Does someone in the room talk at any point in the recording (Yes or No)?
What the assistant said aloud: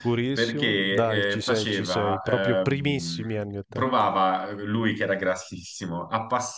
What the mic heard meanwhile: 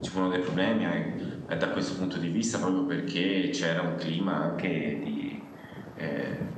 Yes